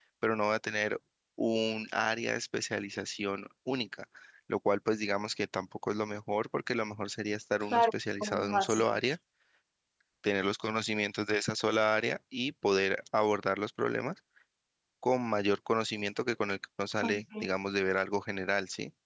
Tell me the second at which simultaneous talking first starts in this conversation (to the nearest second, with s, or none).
8 s